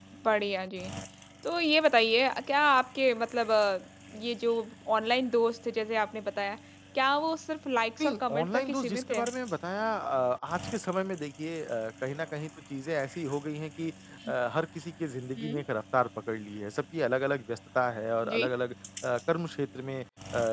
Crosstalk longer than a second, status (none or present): present